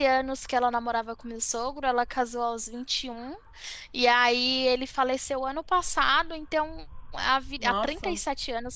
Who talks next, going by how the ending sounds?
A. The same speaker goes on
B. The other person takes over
A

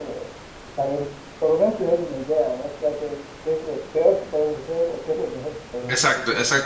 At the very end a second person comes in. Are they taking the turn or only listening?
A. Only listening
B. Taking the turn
B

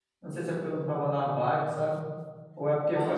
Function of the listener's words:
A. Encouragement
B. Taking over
A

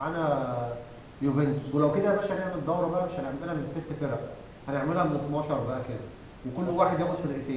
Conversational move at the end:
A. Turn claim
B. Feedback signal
B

